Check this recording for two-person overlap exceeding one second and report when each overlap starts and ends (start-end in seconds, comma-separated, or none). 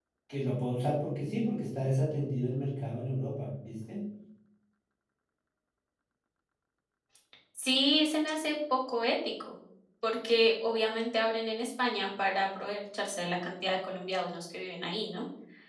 none